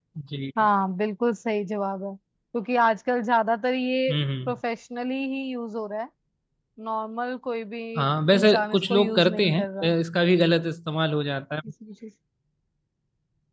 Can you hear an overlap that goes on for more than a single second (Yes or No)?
Yes